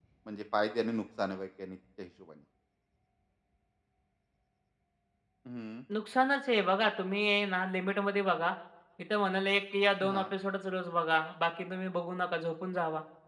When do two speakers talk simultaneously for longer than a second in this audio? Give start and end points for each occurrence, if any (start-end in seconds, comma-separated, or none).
none